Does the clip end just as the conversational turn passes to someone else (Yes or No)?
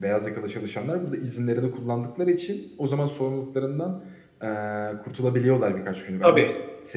No